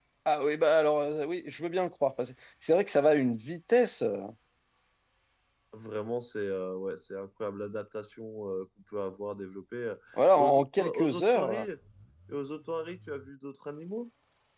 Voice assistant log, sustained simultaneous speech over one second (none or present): present